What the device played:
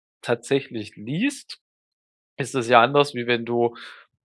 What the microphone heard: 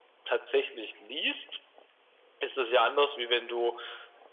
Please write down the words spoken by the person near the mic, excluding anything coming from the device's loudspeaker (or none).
none